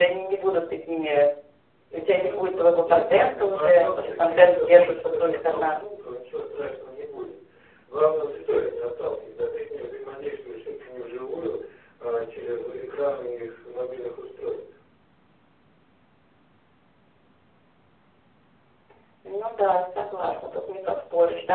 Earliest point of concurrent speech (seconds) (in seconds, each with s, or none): 1.9 s